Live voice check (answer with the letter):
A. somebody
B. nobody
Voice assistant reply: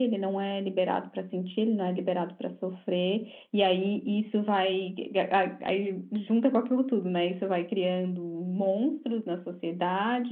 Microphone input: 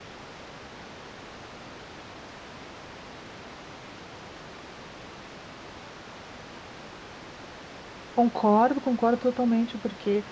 A